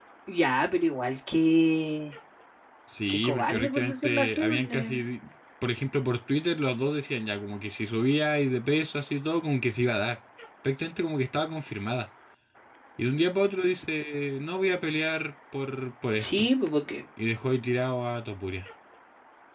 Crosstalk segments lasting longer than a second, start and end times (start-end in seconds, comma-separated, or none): 3.1-5.0